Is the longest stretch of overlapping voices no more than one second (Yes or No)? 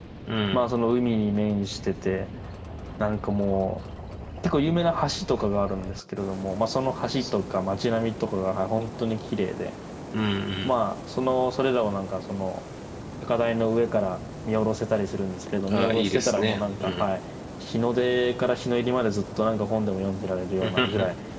No